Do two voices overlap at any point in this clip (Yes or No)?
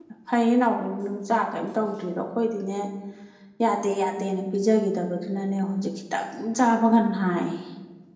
No